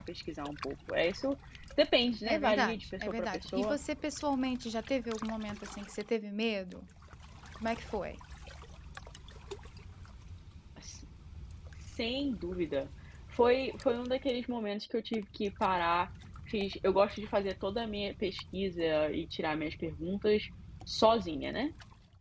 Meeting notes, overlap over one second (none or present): present